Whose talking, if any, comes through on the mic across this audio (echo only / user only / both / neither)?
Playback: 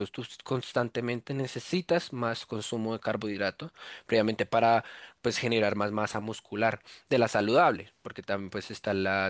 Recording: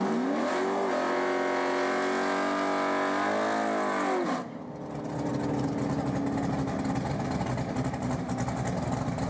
neither